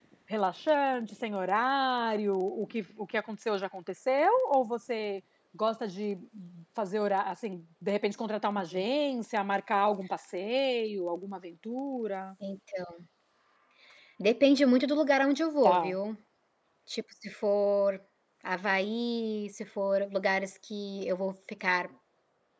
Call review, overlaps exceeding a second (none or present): none